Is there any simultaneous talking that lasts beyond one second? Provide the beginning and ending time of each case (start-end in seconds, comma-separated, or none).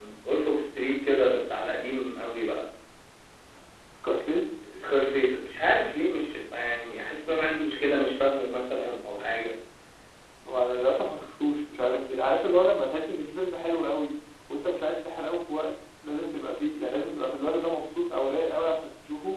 none